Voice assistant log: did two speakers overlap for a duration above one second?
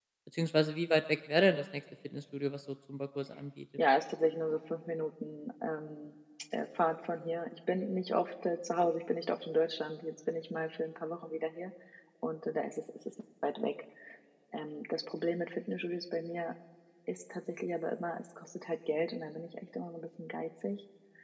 No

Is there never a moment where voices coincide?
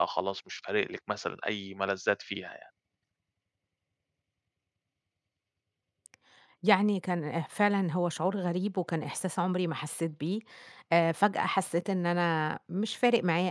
Yes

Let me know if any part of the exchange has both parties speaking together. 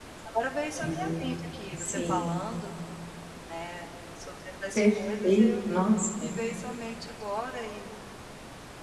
Yes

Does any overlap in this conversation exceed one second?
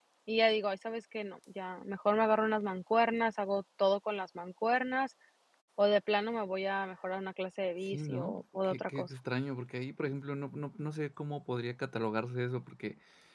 Yes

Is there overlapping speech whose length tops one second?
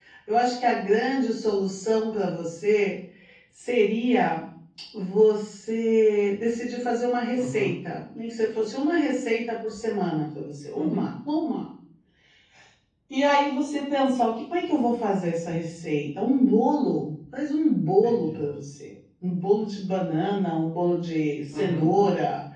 No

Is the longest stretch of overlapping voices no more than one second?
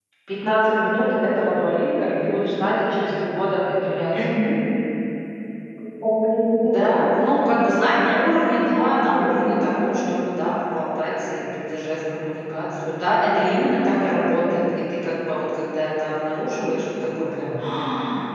Yes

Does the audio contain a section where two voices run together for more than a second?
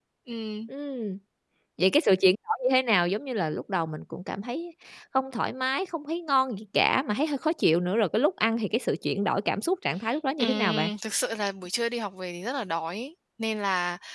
No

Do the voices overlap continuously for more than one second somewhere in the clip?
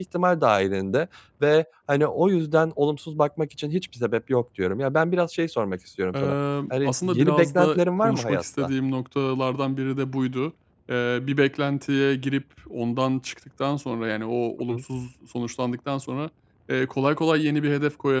Yes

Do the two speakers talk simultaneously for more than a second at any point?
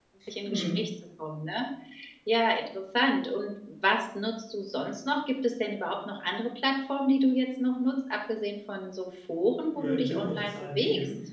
Yes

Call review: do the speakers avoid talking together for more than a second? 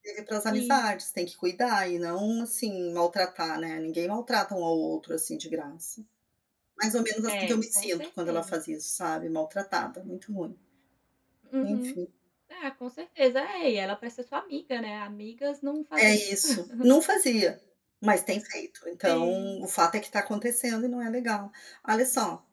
No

